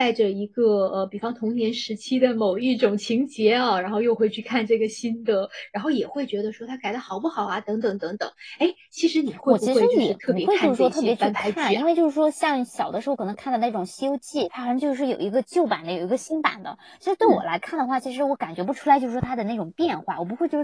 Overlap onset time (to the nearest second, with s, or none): 9 s